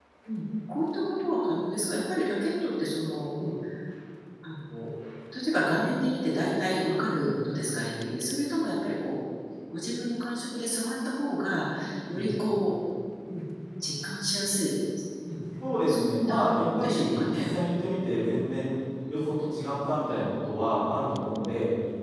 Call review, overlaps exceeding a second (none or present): present